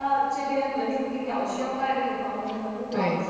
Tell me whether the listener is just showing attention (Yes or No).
No